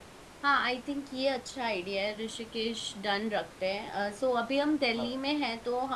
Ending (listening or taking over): listening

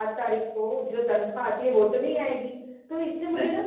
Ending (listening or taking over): listening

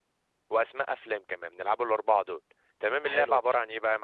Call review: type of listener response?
listening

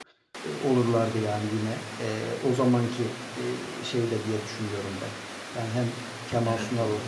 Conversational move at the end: listening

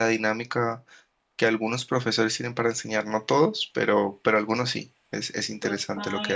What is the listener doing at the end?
taking over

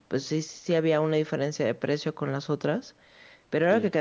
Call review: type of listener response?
listening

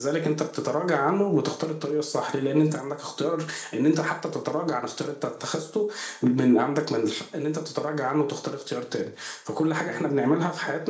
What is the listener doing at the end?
listening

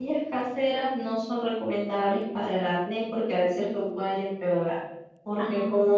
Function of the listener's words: listening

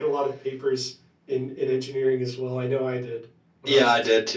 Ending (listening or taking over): taking over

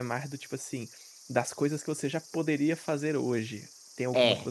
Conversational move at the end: listening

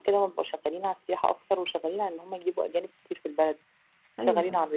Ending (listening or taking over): listening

